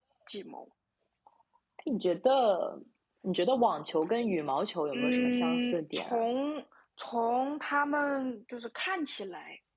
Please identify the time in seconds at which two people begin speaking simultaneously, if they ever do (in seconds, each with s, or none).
4.9 s